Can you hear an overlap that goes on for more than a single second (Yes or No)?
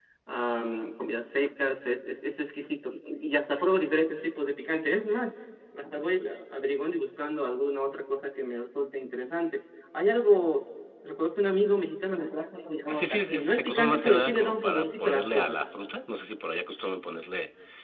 Yes